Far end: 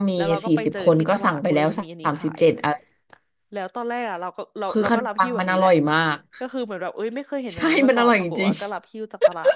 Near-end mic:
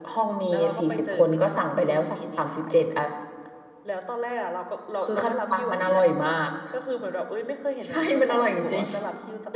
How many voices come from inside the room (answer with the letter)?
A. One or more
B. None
B